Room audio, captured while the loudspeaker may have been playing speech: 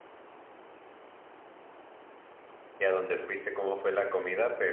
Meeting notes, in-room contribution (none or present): present